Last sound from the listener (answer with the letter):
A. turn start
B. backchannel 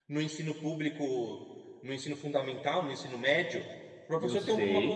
B